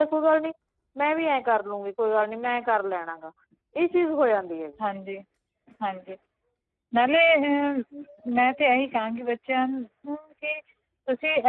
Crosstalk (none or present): none